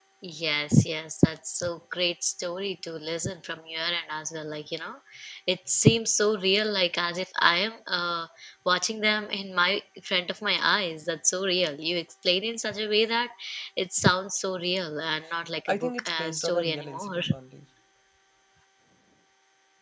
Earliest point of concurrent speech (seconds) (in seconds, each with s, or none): 15.7 s